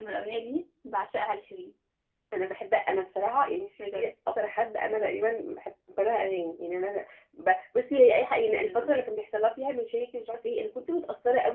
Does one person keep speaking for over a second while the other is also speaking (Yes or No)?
No